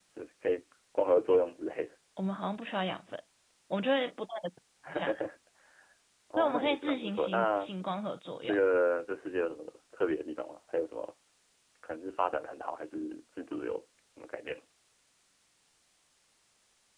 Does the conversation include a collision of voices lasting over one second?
Yes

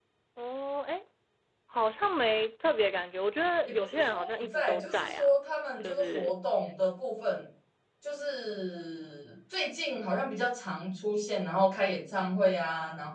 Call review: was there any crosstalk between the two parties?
Yes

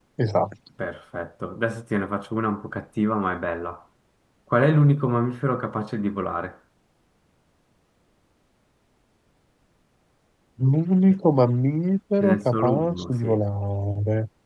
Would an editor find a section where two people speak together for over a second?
Yes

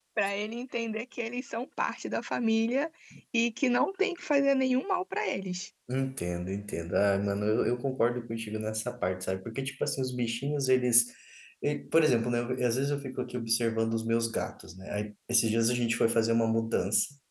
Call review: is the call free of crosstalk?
Yes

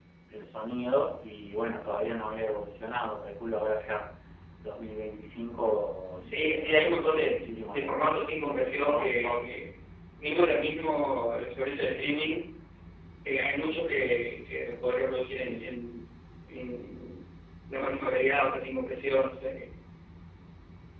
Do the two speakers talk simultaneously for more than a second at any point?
Yes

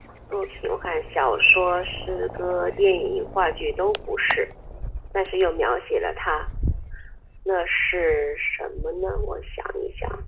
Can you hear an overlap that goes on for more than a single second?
No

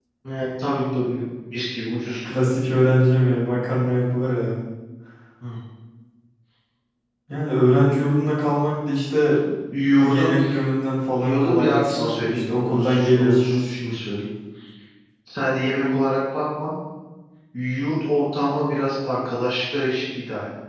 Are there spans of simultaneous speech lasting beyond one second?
Yes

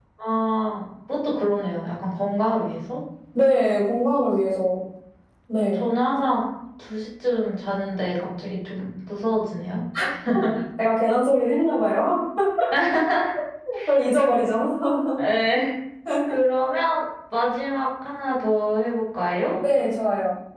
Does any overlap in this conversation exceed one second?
No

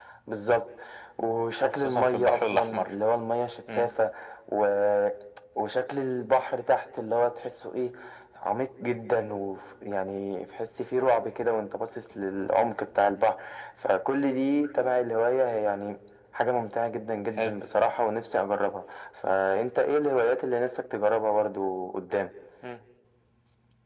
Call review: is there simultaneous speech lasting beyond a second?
Yes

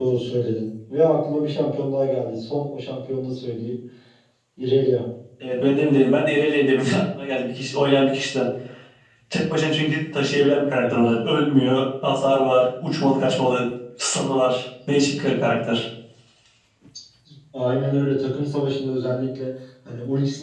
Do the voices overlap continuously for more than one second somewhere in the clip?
No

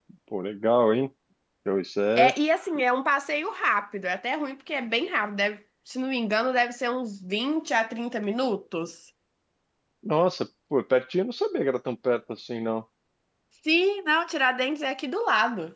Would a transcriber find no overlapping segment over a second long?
Yes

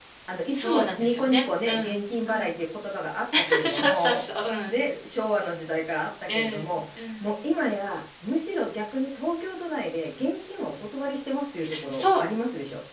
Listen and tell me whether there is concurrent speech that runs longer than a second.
Yes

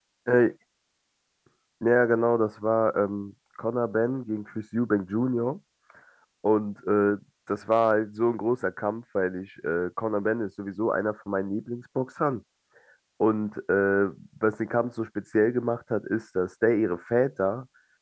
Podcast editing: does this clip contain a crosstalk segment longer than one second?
No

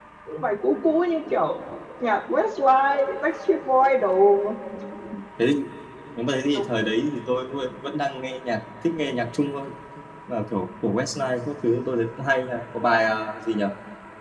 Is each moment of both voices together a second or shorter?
Yes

